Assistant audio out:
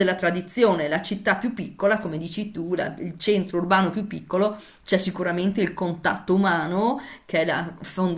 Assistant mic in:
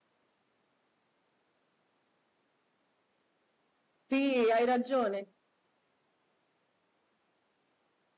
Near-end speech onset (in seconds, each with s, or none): 4.1 s